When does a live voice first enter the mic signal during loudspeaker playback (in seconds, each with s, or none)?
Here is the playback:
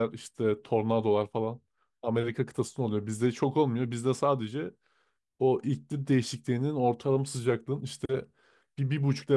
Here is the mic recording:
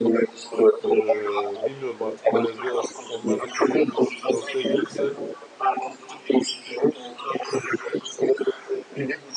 0.8 s